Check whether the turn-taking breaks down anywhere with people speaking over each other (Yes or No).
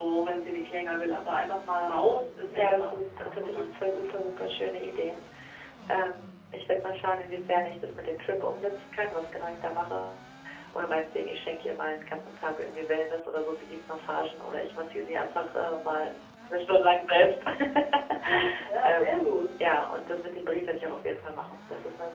Yes